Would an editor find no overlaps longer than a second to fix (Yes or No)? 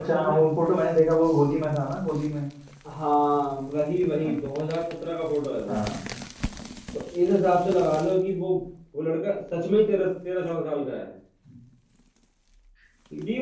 Yes